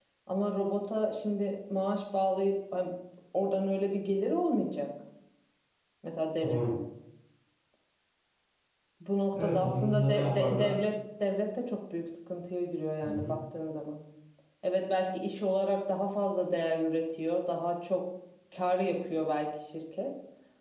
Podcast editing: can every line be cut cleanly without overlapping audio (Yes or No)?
No